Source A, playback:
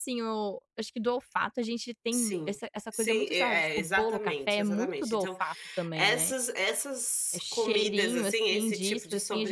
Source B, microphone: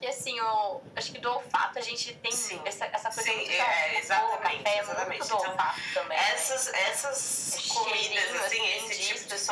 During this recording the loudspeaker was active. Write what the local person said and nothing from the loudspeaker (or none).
none